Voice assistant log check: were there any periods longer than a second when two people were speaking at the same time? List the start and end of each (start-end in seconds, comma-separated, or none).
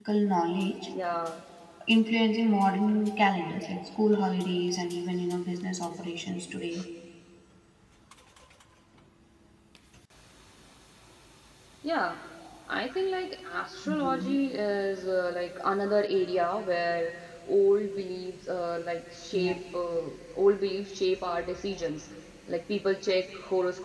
none